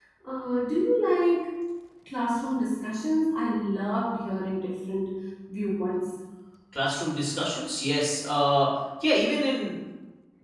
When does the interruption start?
none

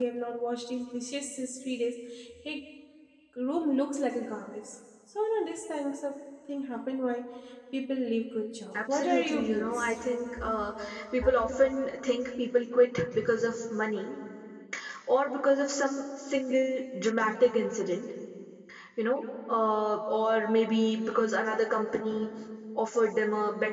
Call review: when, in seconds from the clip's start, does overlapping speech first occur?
8.7 s

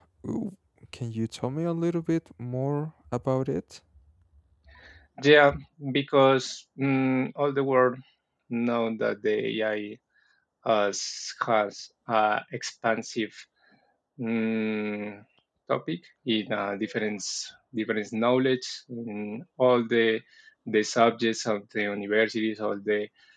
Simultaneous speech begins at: none

